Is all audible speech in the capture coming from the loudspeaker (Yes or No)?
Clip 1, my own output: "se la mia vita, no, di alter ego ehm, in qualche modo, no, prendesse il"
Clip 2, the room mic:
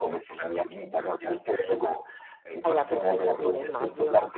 No